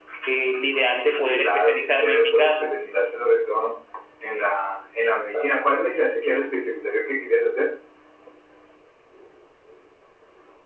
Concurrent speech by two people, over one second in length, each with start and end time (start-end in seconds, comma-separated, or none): 1.2-2.6